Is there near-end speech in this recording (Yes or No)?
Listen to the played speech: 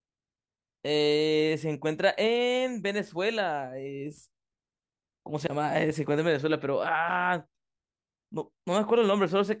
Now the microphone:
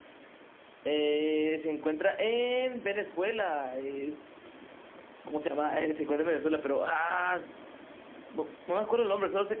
No